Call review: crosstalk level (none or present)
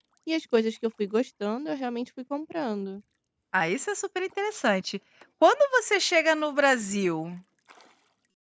none